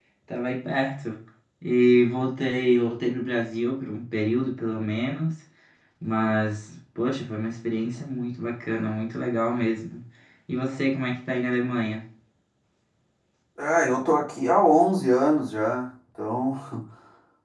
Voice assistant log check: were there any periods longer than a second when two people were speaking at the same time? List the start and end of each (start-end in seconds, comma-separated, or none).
none